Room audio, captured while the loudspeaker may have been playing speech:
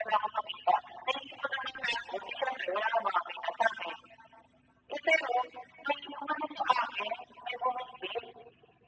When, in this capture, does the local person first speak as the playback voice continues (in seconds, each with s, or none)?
none